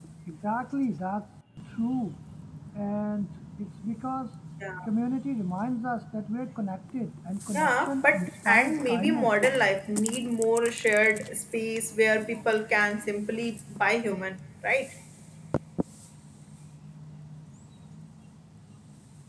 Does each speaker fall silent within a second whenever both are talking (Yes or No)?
No